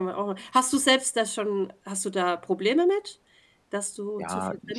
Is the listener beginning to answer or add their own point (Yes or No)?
Yes